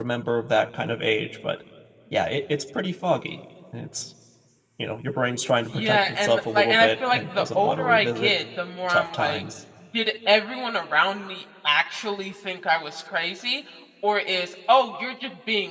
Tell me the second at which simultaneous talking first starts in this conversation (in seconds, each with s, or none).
5.7 s